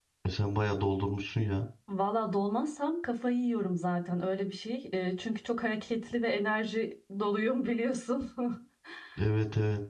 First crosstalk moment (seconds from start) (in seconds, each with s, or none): none